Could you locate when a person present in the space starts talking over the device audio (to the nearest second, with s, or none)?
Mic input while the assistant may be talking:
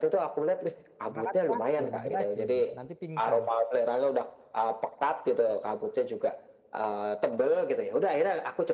1 s